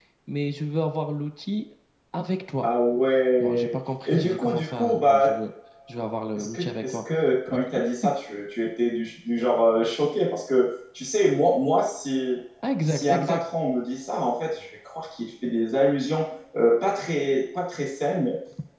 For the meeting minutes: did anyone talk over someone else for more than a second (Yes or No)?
Yes